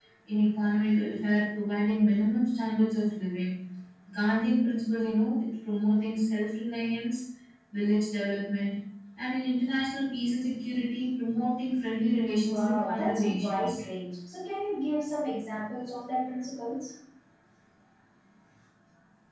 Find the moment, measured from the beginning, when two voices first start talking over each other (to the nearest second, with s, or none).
12 s